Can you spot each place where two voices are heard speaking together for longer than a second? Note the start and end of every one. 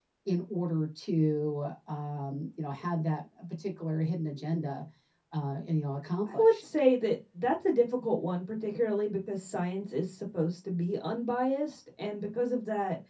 none

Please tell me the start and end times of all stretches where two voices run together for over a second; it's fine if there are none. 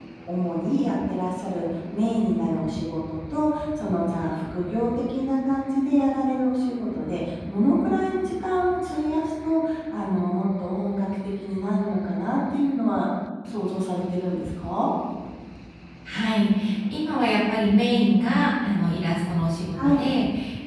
none

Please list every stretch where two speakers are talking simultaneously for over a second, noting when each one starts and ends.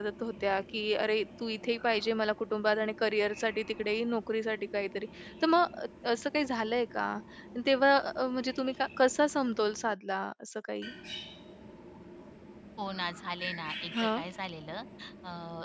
none

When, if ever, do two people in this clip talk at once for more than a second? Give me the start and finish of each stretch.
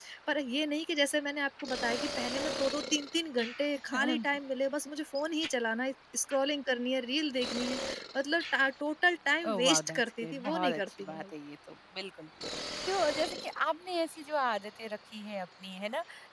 9.5-11.2

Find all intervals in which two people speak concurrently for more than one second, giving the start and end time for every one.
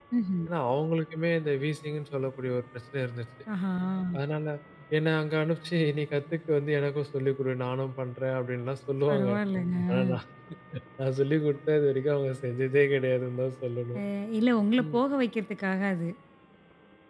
none

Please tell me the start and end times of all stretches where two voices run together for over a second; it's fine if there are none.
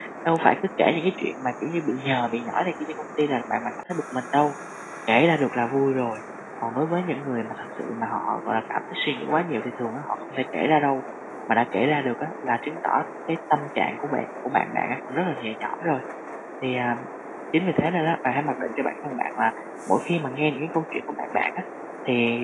none

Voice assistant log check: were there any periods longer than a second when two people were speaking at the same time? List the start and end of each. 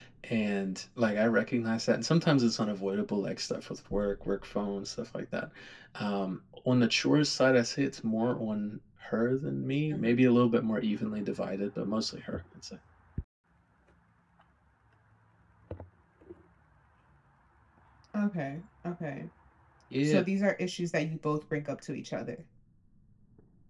none

